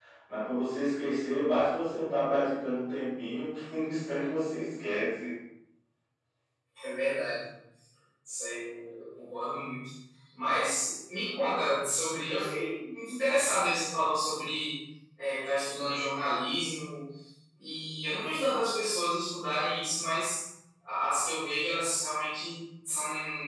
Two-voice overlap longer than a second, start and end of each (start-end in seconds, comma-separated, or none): none